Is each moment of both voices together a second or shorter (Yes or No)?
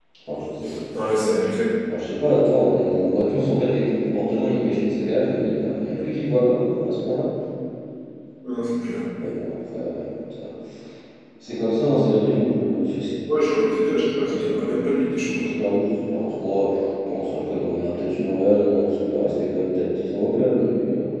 Yes